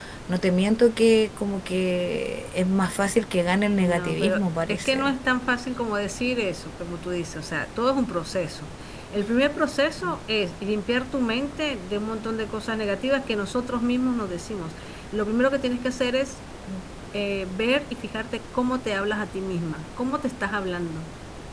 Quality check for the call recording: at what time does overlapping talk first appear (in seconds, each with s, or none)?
3.8 s